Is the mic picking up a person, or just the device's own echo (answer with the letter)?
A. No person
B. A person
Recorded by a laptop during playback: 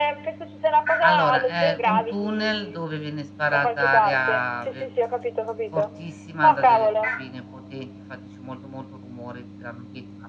B